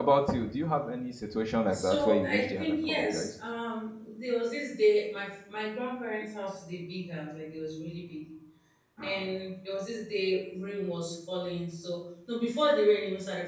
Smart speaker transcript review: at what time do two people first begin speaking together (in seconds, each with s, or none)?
1.7 s